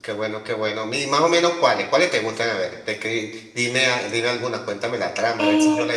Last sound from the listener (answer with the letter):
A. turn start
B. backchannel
A